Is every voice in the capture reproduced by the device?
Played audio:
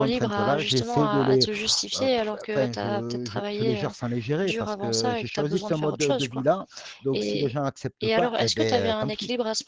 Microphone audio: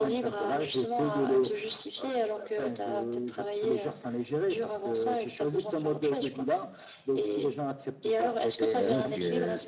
No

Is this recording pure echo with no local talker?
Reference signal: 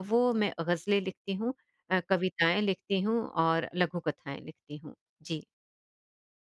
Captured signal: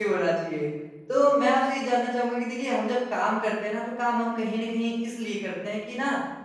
No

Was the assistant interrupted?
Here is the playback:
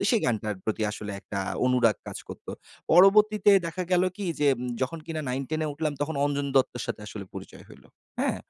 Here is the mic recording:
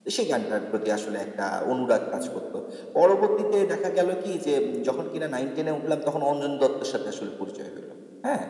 No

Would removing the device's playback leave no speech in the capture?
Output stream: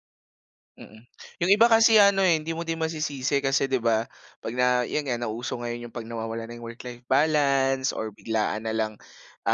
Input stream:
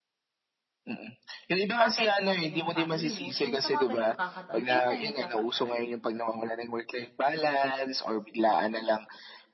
No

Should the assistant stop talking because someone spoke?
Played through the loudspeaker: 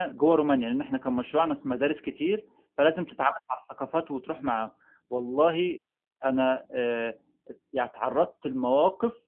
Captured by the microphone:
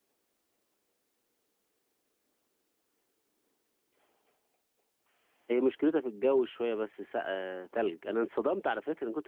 Yes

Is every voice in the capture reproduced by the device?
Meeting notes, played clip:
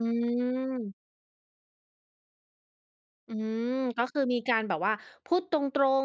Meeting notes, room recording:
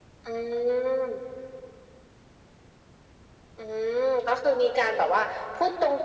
Yes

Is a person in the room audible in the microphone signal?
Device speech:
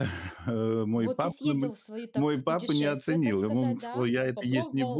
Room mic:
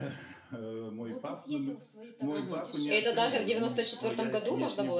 Yes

